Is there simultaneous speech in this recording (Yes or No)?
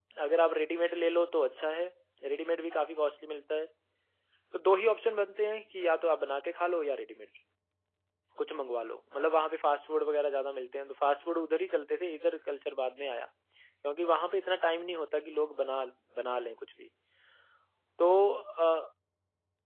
No